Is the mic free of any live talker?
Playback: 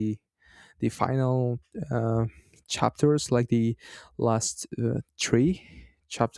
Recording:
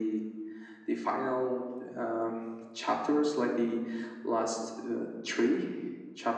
Yes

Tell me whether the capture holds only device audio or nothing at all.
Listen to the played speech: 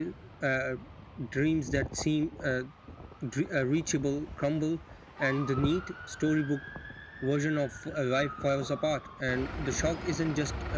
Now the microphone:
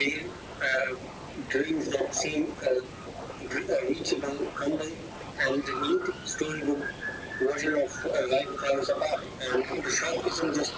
Yes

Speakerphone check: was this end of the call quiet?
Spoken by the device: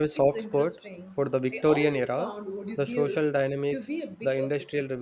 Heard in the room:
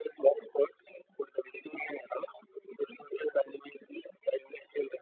Yes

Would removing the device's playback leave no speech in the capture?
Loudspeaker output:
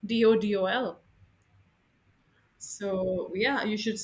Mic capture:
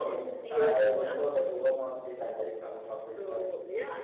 No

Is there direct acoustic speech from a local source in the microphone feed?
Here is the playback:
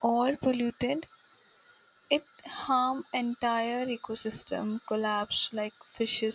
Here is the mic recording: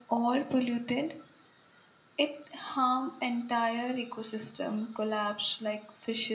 No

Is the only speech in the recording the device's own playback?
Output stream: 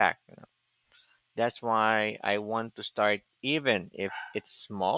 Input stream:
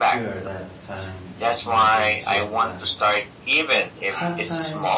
No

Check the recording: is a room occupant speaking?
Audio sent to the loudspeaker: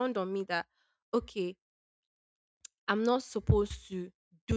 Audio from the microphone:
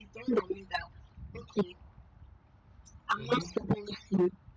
Yes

